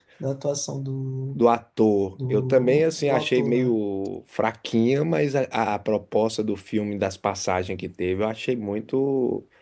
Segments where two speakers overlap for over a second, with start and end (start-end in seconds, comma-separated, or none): 2.3-3.8